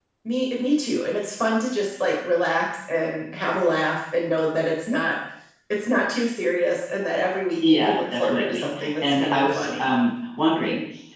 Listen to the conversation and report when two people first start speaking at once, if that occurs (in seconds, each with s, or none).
7.6 s